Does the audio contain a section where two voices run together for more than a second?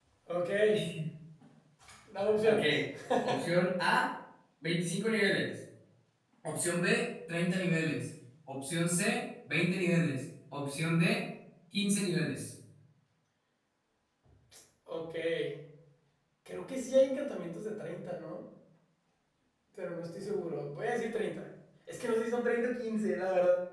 No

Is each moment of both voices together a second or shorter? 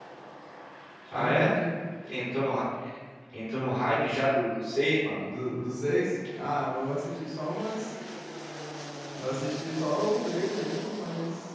Yes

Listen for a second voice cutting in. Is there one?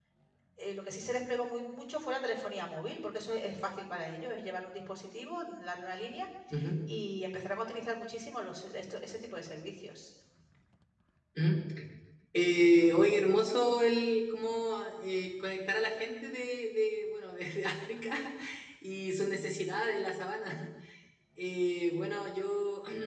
No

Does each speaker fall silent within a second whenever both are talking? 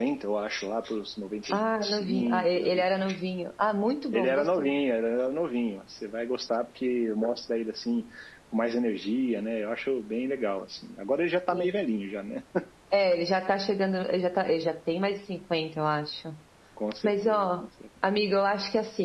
No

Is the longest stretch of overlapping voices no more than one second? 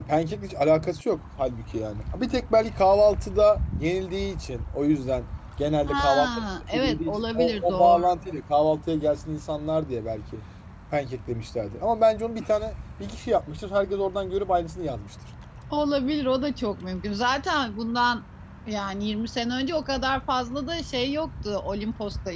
No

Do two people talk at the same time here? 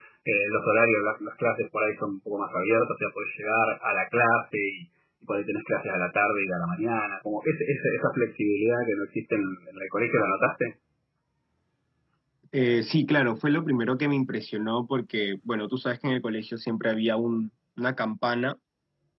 No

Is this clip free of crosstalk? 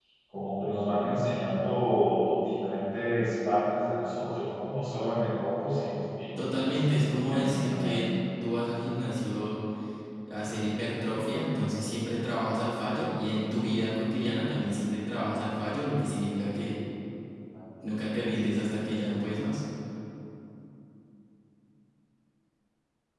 No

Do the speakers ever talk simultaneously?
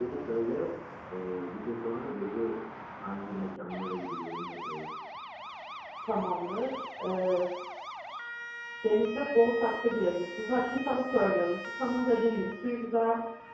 No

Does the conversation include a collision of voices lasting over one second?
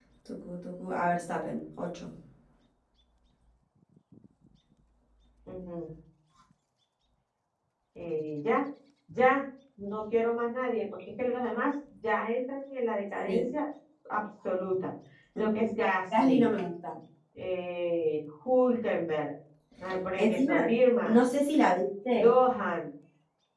No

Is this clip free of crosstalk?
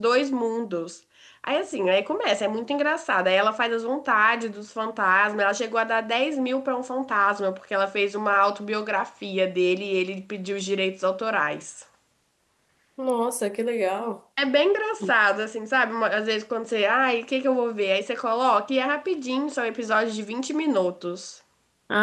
Yes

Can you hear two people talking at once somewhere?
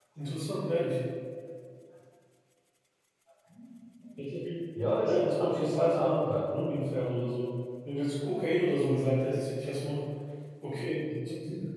Yes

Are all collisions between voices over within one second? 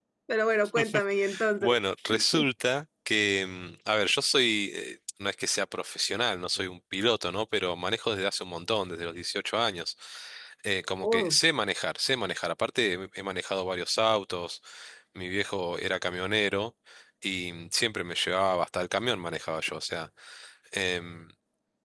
Yes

